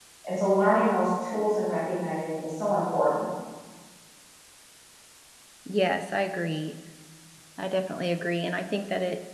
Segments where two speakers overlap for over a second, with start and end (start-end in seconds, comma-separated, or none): none